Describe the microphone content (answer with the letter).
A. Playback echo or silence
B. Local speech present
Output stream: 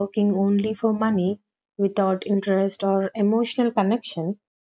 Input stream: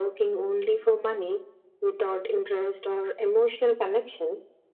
A